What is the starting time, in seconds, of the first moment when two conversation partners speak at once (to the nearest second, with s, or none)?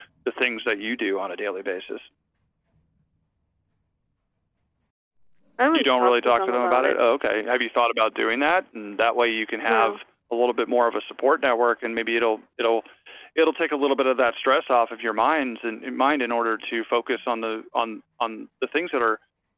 6 s